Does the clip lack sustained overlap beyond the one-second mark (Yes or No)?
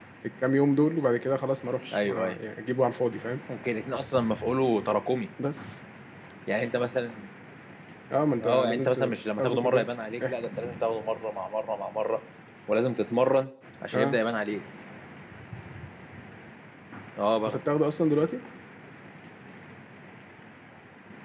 No